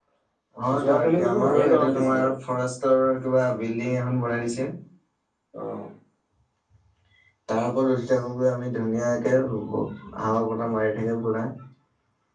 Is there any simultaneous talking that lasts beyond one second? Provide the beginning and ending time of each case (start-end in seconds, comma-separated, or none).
0.8-2.2